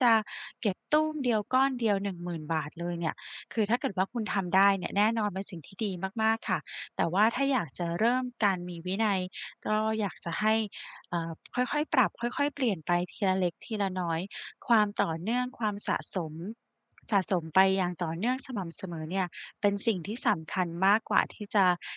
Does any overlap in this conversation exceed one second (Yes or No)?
No